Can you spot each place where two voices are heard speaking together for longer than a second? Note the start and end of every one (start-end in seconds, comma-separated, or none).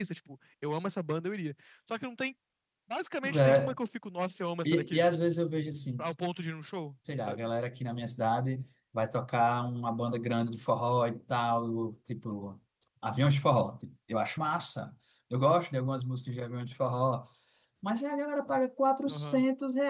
none